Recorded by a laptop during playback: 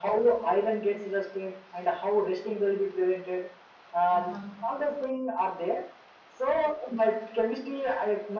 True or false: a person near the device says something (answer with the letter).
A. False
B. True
B